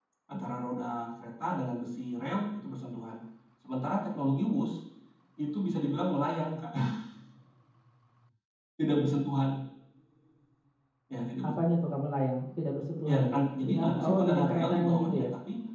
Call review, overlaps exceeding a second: present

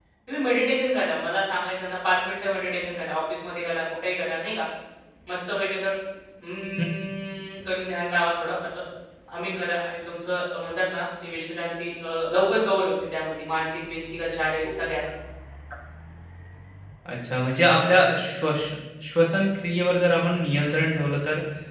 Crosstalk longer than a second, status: none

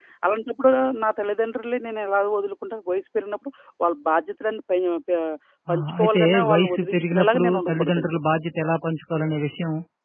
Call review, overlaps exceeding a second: present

